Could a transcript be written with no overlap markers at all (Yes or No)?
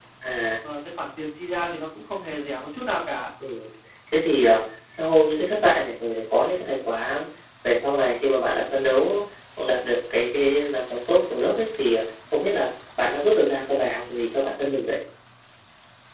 Yes